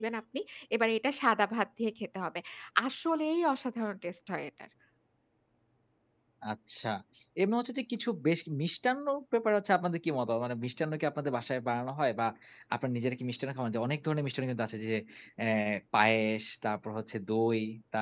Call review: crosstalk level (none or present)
none